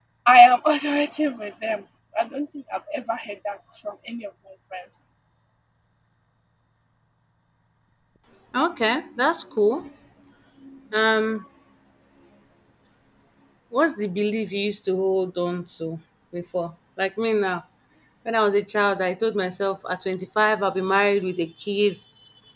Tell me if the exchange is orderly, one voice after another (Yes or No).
Yes